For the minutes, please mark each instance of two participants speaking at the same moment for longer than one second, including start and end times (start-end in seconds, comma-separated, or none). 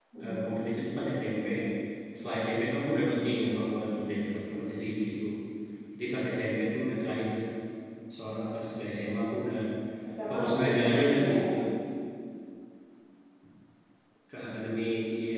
10.3-11.5